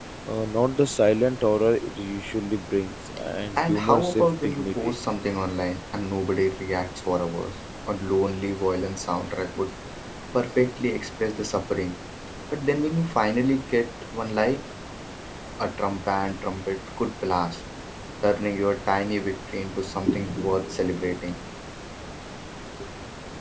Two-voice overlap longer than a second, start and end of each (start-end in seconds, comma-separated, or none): 3.6-4.9